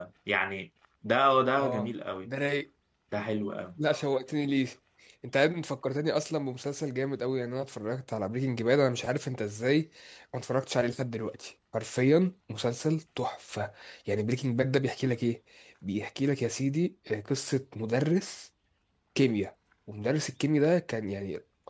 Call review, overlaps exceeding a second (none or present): none